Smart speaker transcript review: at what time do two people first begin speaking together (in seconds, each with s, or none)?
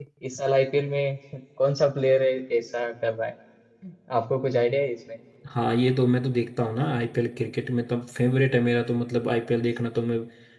none